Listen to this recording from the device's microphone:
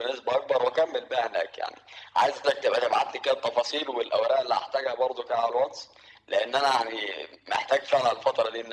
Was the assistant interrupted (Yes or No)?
No